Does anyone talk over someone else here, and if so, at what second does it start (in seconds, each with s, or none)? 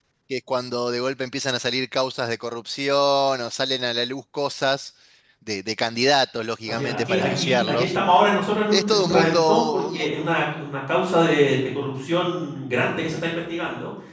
6.7 s